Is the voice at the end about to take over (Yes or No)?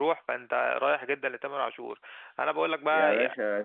Yes